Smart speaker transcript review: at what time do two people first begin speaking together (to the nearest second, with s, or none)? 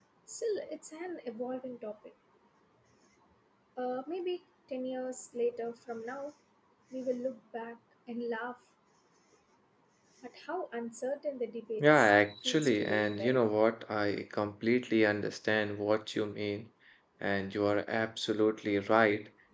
12 s